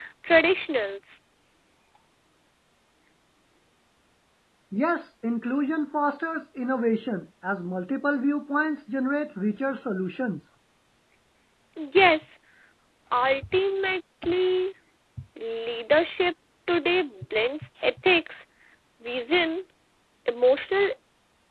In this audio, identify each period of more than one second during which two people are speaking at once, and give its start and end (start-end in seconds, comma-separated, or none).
none